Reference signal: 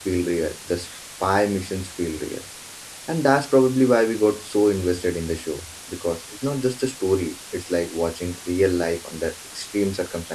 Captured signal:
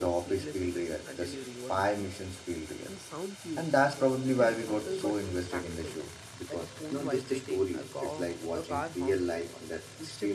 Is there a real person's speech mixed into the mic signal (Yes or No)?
Yes